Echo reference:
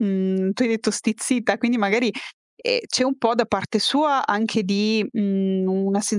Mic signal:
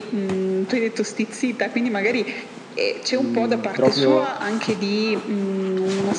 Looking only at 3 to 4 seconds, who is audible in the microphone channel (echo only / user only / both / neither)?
both